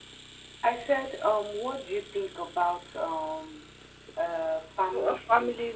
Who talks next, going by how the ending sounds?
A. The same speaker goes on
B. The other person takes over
B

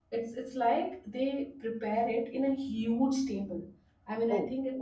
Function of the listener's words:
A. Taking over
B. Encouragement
B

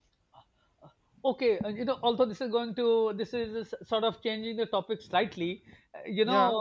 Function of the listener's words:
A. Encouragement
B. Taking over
A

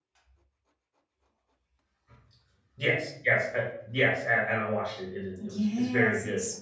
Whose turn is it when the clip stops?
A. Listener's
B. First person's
A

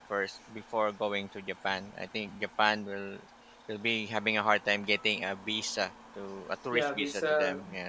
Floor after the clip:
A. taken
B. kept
A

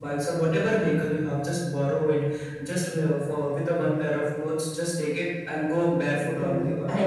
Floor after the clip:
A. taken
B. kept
A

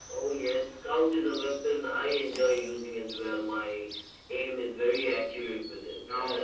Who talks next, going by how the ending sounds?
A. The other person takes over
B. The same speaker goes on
B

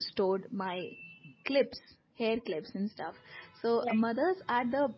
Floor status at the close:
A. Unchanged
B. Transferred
A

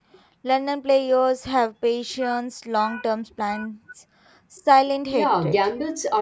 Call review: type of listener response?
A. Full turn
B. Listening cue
A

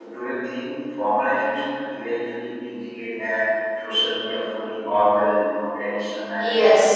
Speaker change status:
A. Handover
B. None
A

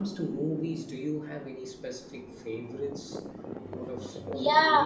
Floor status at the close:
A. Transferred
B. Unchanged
A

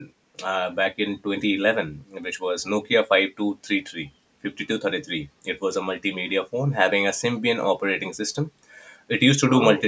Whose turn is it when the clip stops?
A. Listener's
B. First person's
B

